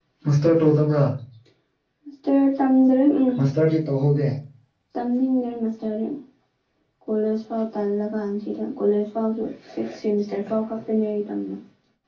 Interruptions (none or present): none